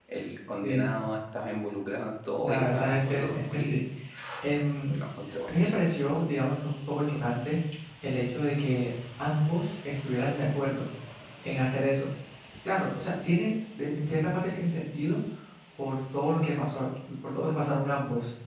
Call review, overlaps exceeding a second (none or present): present